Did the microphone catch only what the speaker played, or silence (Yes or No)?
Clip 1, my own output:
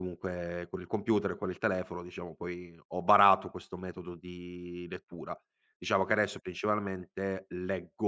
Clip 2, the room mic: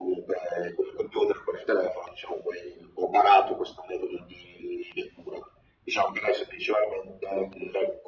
Yes